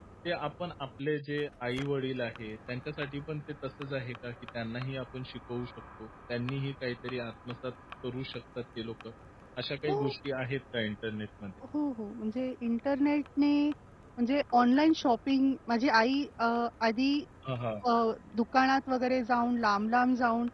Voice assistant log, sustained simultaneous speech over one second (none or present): none